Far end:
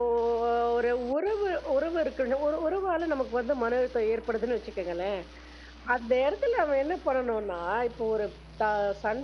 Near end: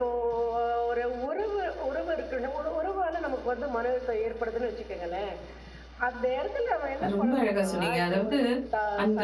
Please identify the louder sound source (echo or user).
user